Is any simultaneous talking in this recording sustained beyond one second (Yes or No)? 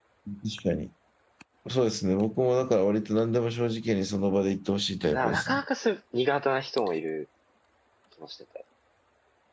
No